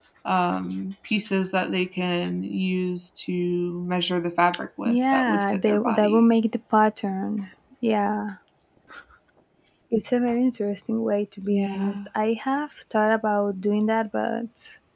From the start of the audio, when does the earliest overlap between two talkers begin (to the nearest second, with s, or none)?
5 s